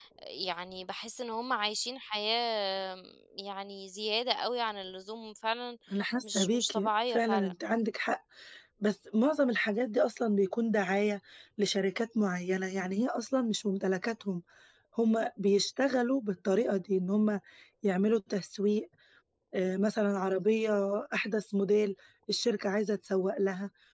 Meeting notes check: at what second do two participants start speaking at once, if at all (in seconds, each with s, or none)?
6.3 s